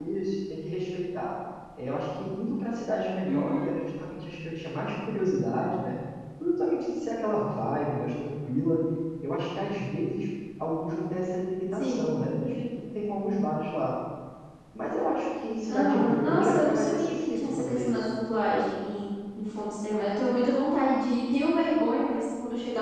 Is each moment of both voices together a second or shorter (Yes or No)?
No